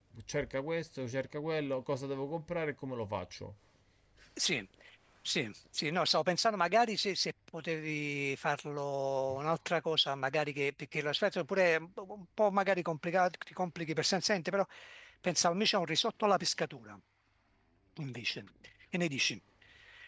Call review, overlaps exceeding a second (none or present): none